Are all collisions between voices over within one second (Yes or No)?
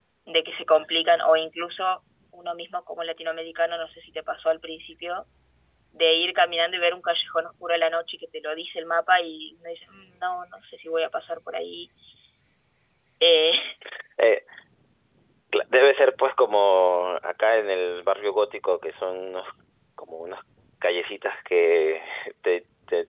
Yes